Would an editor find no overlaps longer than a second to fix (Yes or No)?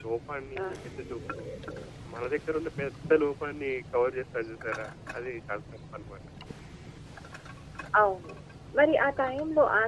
Yes